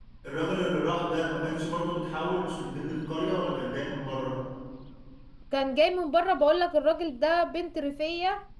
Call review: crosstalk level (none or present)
none